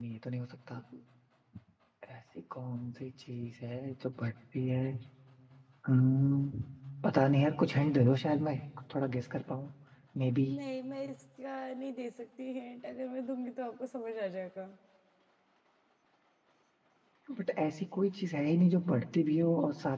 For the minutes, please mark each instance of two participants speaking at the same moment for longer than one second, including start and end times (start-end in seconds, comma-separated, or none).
none